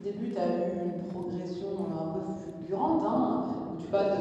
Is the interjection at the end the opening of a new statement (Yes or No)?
No